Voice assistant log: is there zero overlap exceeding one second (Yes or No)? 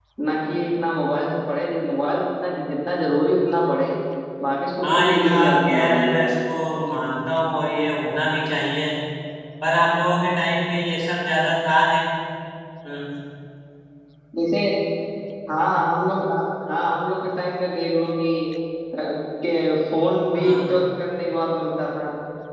No